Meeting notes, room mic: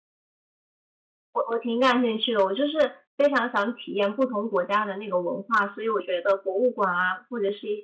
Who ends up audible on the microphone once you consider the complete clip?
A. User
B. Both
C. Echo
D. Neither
A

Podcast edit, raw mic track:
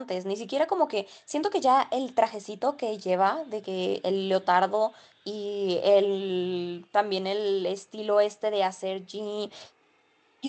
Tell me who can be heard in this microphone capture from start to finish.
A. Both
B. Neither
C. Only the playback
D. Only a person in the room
D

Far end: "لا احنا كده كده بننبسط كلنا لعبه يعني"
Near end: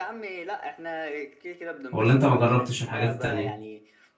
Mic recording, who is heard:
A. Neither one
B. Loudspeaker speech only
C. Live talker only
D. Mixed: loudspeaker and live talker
D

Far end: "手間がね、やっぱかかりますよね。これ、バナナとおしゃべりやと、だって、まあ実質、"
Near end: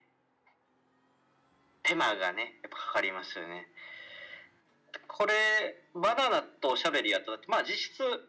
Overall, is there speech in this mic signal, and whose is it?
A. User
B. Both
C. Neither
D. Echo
D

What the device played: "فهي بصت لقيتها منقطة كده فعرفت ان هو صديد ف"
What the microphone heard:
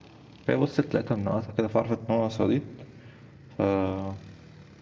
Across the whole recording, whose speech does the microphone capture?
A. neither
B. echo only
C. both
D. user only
B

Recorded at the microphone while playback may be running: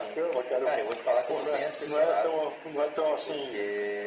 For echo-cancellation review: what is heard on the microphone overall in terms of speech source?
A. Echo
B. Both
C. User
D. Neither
A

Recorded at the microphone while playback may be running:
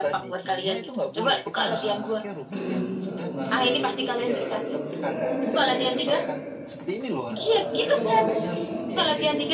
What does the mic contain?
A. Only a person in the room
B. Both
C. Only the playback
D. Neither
B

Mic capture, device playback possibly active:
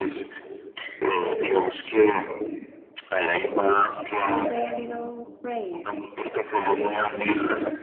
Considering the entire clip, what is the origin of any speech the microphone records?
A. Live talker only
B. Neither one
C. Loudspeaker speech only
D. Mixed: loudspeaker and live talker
D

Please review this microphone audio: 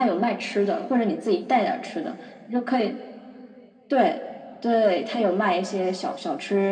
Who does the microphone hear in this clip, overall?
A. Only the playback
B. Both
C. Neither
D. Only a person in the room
A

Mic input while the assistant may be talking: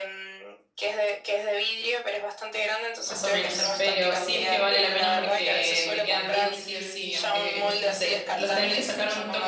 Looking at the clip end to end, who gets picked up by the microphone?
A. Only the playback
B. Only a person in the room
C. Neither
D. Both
D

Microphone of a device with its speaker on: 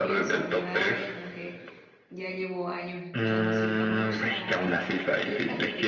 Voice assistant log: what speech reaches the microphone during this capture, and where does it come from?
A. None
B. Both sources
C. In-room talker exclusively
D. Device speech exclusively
B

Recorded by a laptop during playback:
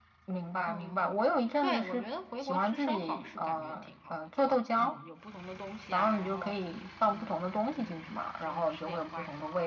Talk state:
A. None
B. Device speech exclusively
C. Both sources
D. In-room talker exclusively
C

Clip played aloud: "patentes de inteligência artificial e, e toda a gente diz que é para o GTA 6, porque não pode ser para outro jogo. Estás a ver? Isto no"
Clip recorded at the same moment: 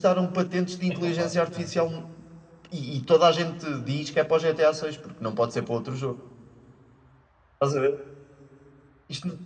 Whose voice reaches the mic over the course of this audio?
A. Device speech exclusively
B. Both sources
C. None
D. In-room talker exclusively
B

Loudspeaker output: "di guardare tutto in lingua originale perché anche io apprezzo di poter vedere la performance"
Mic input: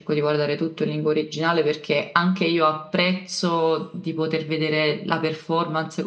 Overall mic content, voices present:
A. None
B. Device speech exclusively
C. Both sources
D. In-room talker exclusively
B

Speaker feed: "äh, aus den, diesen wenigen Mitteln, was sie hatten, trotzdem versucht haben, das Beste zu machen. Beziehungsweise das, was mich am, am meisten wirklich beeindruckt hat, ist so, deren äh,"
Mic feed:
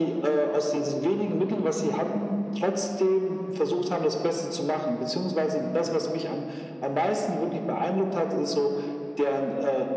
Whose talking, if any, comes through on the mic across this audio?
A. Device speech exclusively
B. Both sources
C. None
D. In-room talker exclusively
A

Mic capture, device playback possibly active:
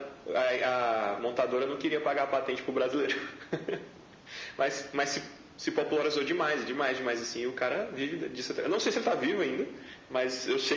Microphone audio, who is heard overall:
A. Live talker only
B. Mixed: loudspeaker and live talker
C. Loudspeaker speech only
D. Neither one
C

